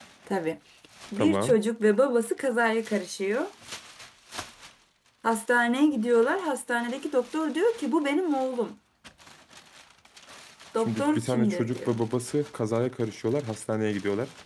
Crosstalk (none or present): present